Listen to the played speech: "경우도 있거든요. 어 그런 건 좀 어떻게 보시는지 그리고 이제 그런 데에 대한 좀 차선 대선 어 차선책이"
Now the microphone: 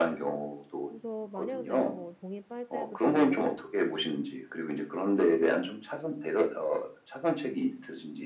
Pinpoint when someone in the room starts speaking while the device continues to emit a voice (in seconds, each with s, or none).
0.9 s